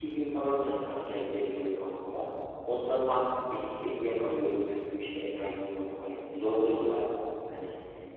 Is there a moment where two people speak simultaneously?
No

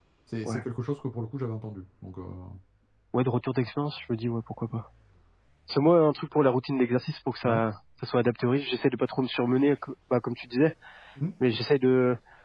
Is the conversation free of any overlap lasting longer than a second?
Yes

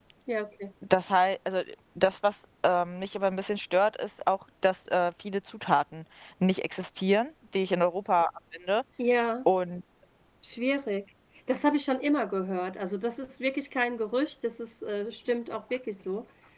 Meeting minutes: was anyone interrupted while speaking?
No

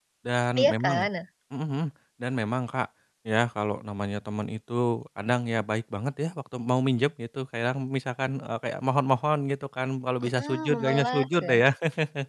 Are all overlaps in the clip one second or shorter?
No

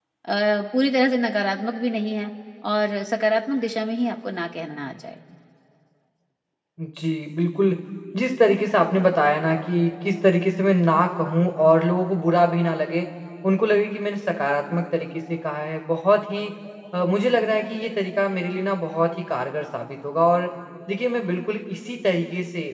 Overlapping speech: No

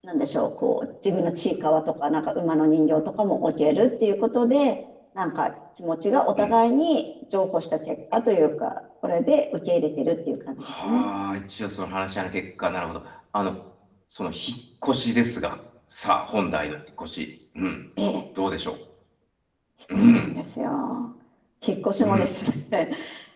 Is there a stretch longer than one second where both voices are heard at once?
No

